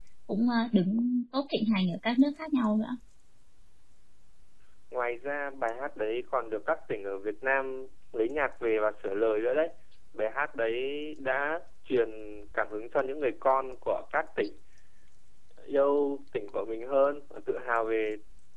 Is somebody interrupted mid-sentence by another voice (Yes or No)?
No